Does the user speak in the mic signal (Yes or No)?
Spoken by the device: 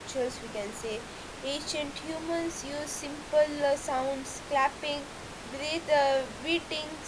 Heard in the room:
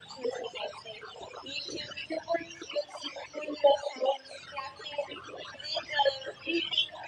No